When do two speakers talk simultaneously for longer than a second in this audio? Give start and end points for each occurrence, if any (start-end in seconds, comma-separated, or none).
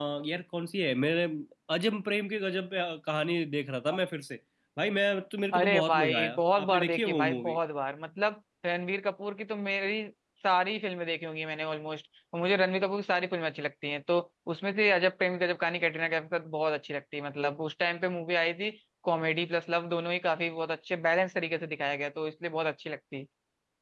5.5-7.6